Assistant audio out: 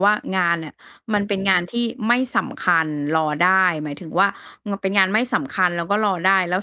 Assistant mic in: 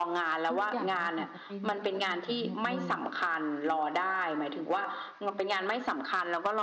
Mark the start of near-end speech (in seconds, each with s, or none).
0.5 s